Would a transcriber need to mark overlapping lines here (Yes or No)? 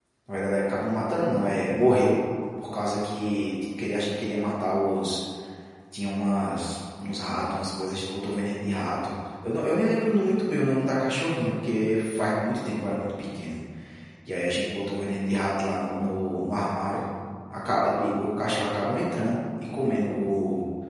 No